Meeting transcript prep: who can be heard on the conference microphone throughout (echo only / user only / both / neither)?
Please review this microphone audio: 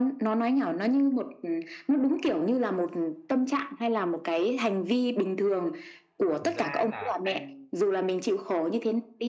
both